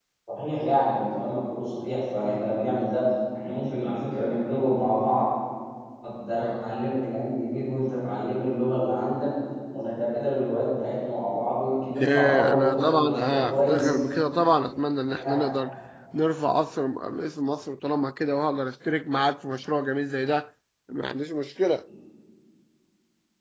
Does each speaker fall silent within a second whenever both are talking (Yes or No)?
No